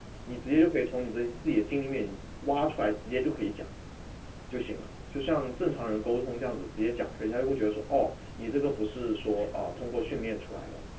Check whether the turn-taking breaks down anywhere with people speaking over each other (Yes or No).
No